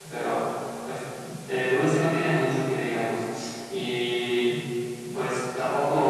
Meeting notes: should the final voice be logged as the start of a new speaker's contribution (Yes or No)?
No